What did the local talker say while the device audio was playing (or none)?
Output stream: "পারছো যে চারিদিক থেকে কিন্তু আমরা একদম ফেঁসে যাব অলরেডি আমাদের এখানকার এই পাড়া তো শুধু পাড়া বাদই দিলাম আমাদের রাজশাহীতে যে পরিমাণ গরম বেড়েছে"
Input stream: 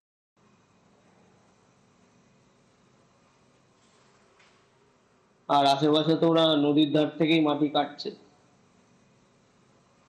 আর আশেপাশে তো ওরা নদীর ধার থেকেই মাটি কাটছে